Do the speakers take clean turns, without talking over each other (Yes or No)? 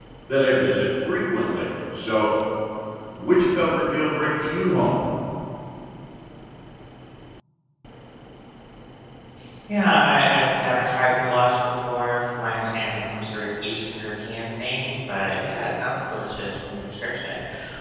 Yes